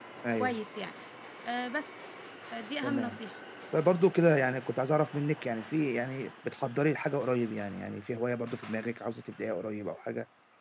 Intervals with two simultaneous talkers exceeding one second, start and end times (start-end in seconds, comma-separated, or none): none